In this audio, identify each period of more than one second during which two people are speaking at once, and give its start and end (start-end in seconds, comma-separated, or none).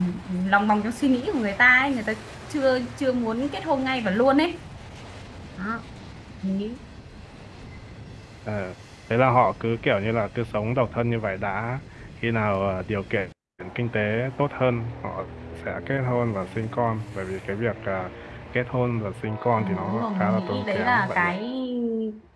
19.6-21.3